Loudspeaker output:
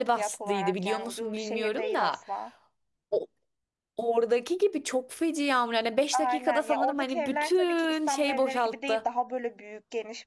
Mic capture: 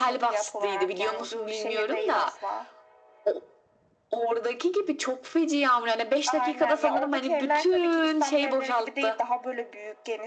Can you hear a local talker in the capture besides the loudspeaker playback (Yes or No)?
No